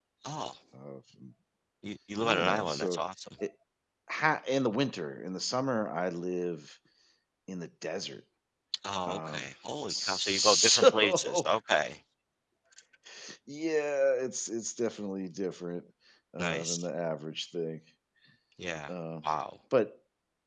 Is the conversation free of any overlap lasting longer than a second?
No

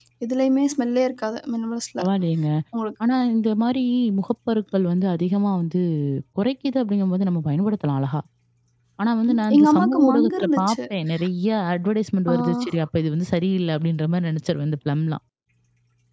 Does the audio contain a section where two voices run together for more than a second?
Yes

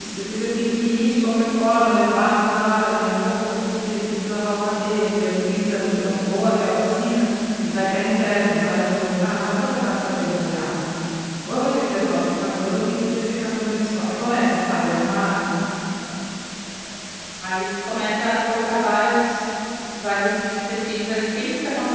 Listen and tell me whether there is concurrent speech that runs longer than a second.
No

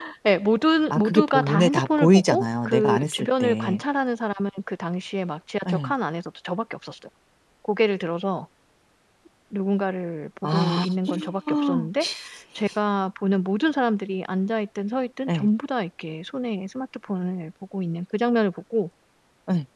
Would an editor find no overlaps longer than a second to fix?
No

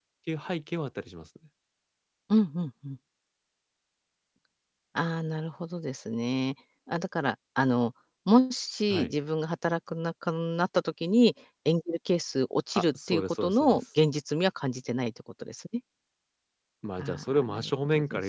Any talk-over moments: Yes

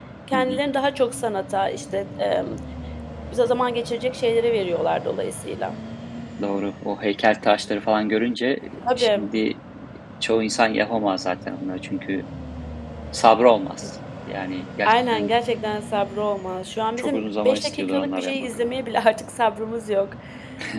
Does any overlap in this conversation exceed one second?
Yes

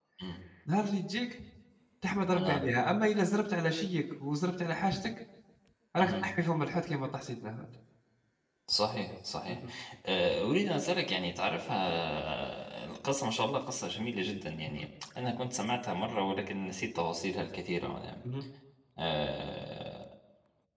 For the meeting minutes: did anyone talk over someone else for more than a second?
No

